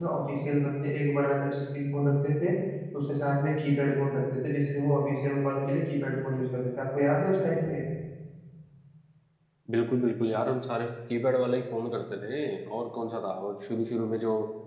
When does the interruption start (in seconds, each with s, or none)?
none